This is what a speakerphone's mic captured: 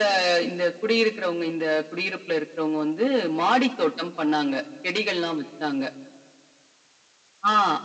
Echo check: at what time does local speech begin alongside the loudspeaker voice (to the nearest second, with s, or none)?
none